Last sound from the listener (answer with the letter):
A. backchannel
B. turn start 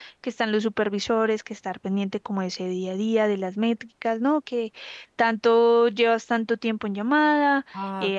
A